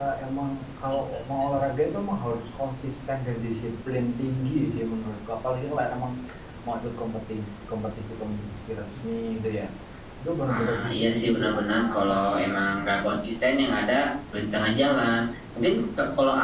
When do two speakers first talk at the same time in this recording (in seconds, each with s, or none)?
10.5 s